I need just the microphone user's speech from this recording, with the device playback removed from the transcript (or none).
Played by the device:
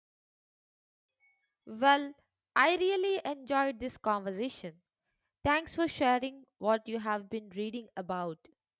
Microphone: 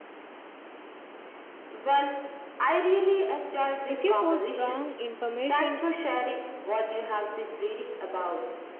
If you put wrong information